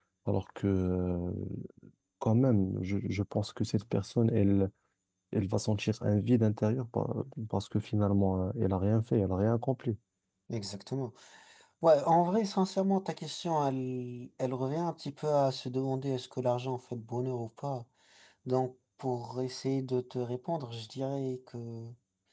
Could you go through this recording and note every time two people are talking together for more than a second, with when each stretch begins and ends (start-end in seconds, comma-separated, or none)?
none